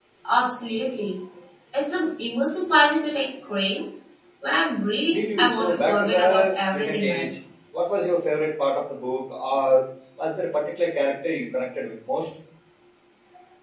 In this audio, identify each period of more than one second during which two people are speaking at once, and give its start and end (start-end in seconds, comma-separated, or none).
5.1-7.4